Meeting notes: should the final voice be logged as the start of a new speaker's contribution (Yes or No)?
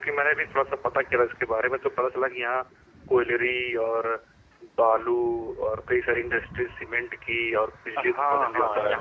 Yes